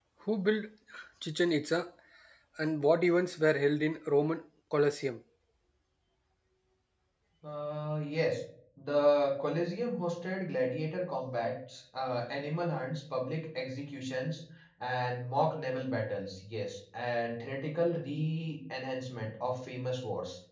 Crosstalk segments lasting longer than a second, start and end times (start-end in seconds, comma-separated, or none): none